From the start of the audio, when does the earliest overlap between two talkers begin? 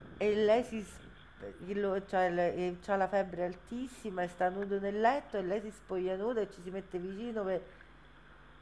none

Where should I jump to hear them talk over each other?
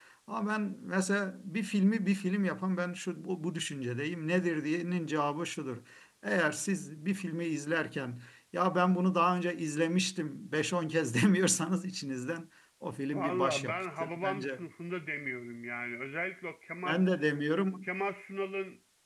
13.1 s

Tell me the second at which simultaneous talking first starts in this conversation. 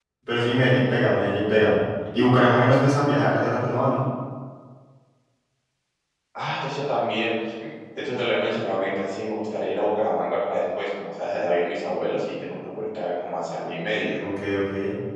none

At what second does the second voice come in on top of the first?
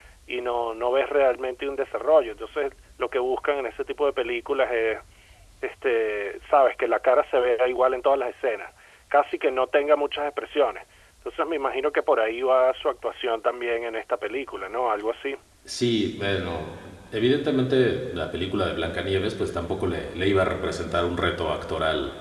none

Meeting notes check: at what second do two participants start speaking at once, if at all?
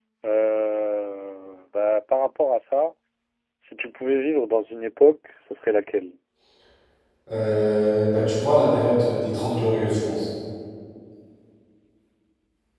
none

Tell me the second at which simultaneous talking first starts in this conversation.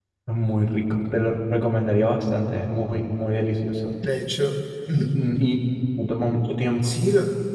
none

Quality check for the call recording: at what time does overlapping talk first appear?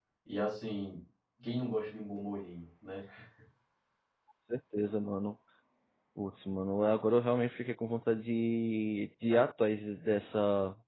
none

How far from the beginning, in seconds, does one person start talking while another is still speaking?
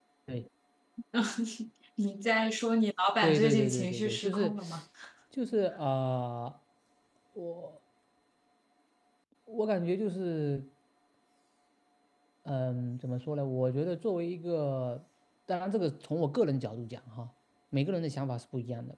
3.2 s

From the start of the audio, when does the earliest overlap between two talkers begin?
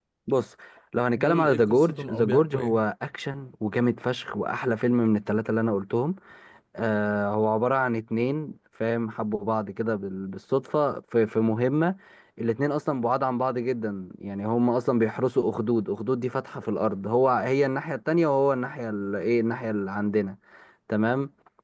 1.2 s

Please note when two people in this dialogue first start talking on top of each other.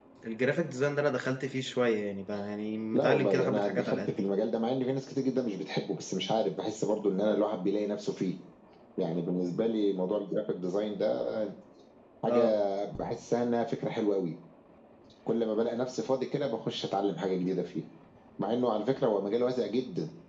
2.9 s

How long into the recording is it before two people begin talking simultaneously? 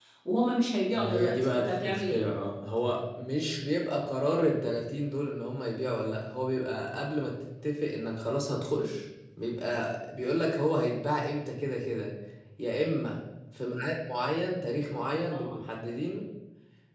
0.9 s

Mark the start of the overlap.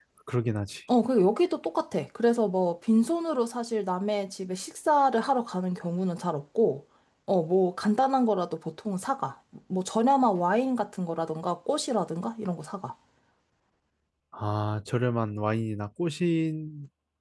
none

